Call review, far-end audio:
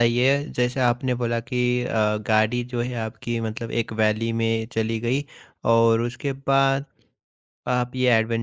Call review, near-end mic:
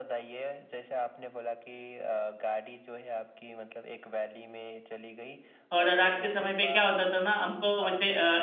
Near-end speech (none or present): present